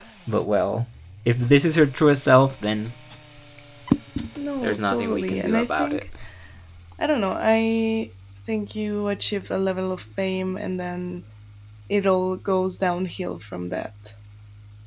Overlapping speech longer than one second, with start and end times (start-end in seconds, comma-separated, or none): 4.6-6.0